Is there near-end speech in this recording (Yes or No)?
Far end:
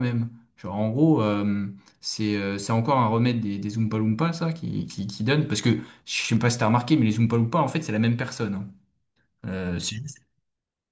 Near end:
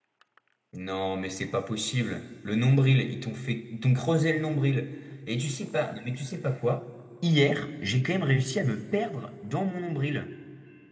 Yes